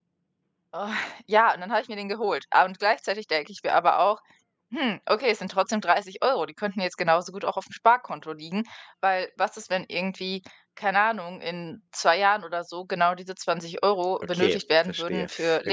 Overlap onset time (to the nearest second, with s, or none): 14 s